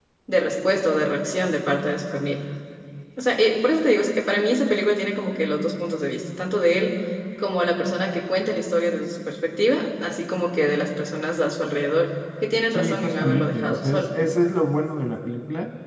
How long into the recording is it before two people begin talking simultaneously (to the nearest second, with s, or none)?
13 s